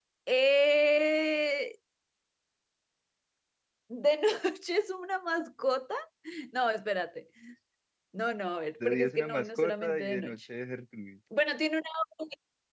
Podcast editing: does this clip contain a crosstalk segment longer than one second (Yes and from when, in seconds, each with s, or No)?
Yes, from 8.8 s